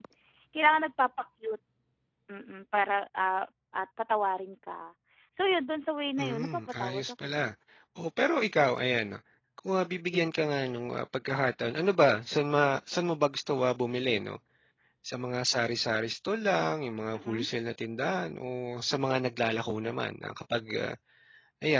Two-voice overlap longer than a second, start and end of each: 6.2-7.4

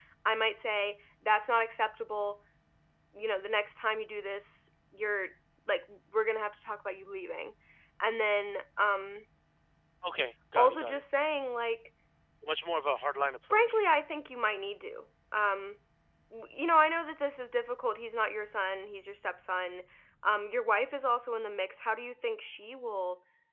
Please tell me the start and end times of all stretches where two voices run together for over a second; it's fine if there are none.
none

